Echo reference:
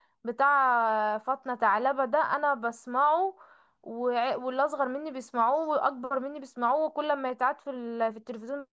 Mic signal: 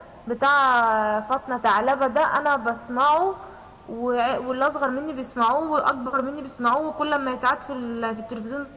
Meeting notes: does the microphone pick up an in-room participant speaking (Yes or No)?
No